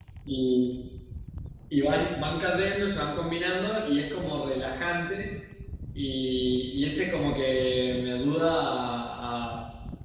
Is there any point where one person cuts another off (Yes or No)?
No